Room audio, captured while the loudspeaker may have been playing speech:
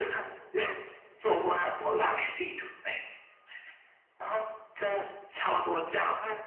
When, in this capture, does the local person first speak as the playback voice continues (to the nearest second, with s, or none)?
none